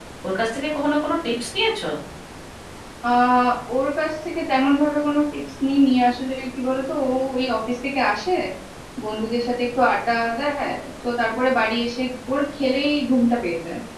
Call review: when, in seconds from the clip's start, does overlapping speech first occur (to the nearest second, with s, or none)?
none